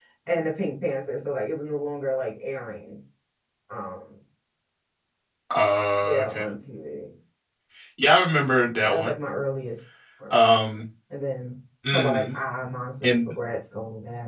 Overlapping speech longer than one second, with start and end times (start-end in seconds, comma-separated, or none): none